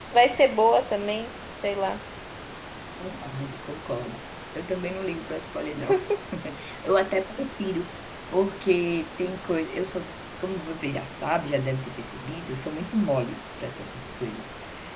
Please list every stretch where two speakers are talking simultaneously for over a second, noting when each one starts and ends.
none

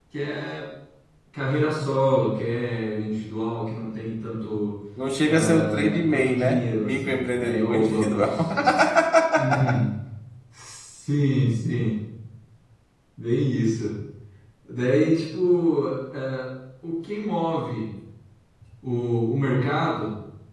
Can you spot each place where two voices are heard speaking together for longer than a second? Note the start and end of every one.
5.3-8.3

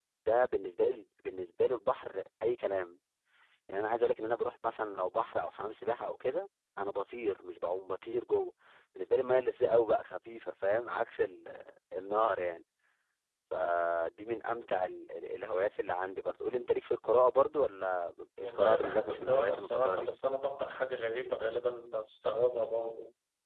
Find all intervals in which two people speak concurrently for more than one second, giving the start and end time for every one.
18.4-20.1

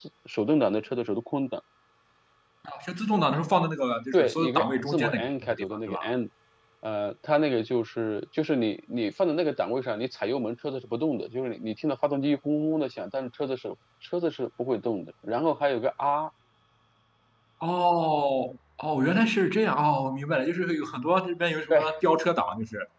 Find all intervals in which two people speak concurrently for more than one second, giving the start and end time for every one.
4.1-6.0

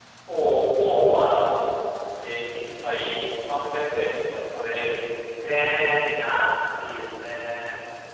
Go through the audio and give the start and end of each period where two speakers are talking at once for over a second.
none

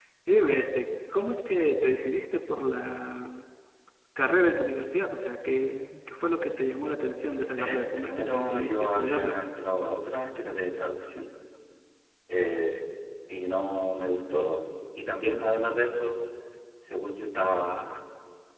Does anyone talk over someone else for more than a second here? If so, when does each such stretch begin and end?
7.6-9.4

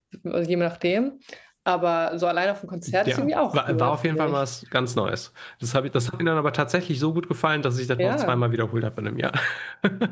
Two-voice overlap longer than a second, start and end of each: 3.0-4.4

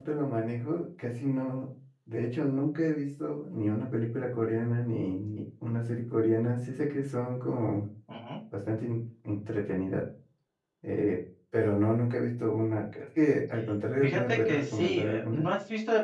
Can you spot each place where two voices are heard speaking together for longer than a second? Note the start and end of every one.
14.0-15.5

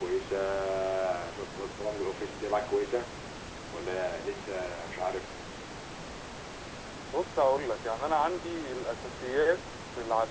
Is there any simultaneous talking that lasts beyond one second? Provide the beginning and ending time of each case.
none

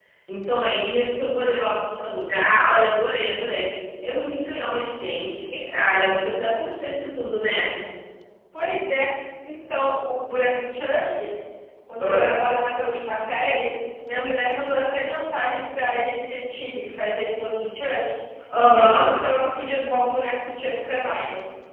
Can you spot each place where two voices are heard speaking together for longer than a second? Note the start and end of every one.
none

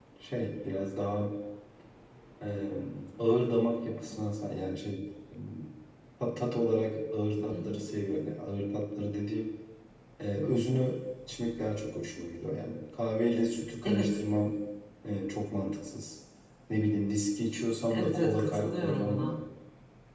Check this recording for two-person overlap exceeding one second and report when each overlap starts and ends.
17.9-19.4

